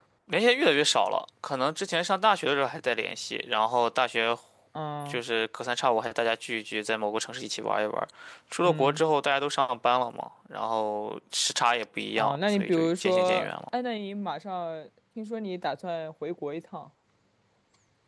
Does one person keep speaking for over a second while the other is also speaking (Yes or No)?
Yes